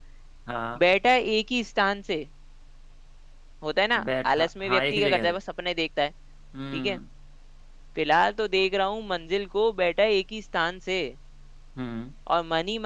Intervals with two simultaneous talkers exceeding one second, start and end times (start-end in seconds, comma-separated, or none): 4.0-5.4